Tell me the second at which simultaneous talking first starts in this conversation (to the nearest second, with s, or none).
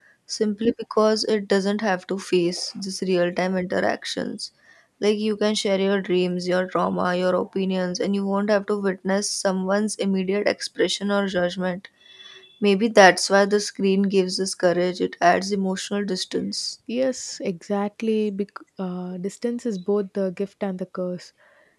none